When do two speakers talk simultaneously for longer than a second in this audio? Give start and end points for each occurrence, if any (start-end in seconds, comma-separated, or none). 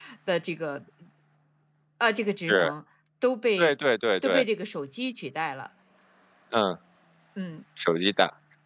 none